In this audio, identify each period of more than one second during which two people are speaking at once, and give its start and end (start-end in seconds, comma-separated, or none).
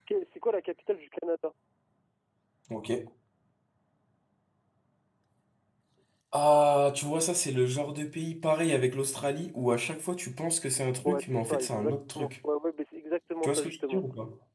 11.0-12.3